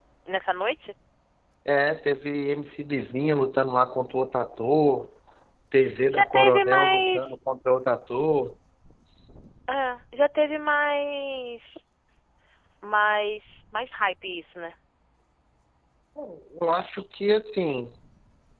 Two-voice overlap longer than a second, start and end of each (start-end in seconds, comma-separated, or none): 6.1-7.3